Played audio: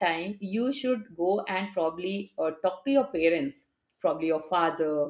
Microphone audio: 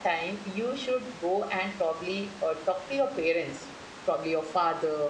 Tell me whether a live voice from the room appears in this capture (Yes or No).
No